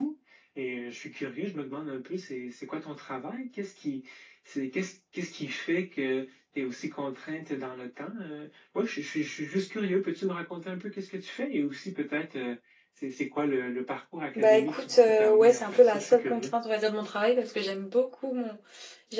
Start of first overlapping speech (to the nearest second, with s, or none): 14 s